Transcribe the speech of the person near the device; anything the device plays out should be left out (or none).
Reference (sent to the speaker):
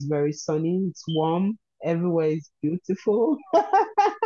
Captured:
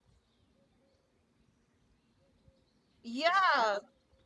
Yeah.